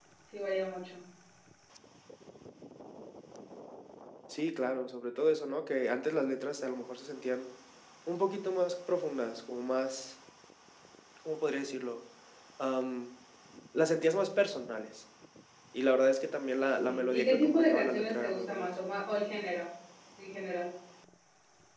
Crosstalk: present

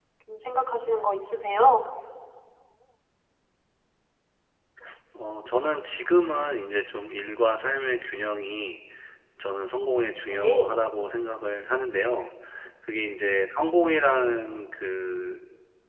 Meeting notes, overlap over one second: none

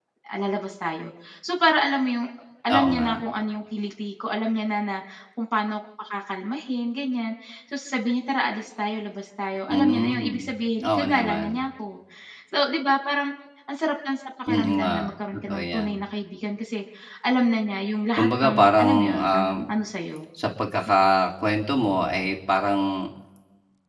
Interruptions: present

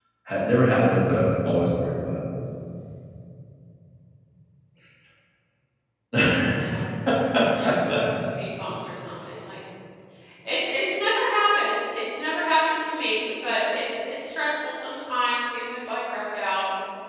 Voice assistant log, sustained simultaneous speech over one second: none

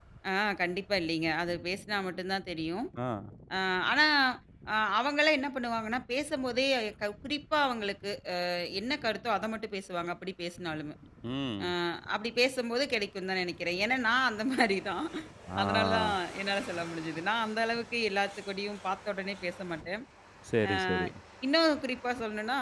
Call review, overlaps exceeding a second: none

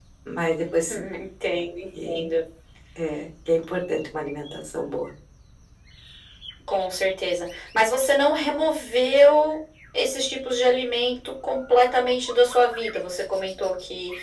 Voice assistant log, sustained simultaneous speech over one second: none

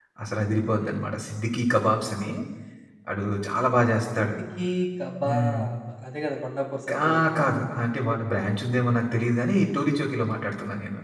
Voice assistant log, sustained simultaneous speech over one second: none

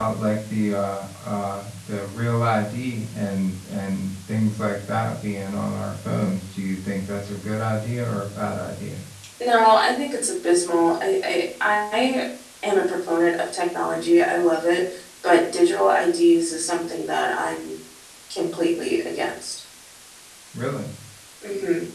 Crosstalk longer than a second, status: none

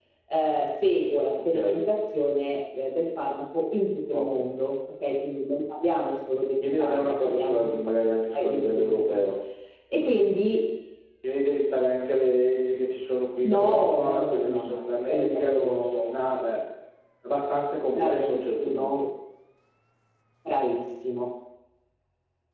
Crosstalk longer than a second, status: present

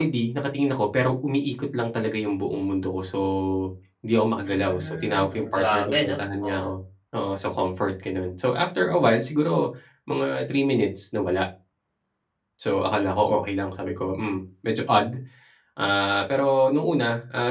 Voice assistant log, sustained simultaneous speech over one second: present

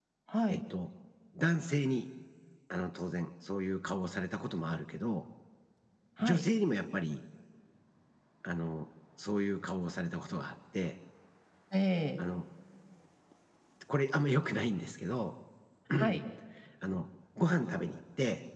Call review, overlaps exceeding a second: none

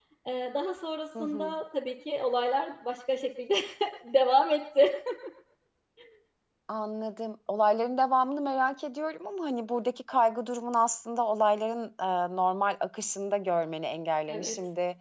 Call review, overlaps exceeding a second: none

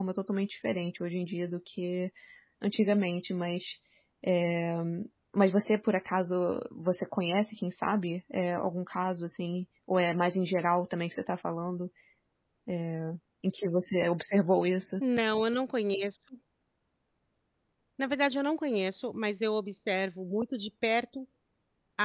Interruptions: none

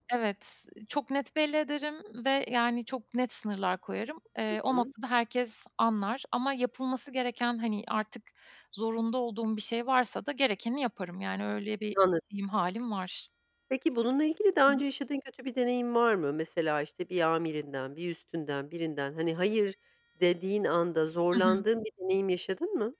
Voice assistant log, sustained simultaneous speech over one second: none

